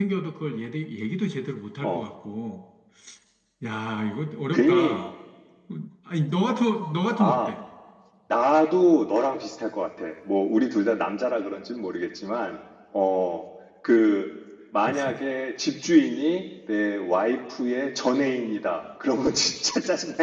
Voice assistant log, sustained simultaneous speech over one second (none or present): none